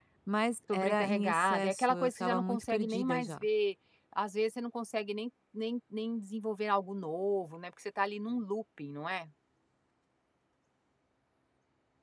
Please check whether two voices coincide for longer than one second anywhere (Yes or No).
Yes